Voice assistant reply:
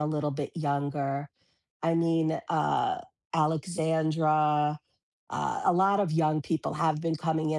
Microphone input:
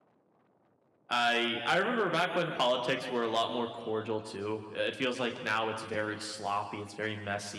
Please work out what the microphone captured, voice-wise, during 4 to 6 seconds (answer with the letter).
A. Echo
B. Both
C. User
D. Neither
C